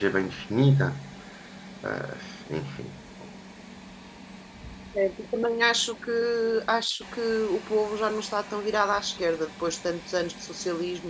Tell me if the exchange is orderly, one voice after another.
Yes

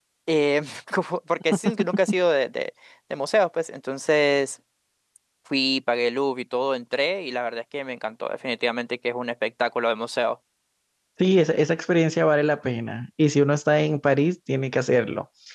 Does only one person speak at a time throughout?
Yes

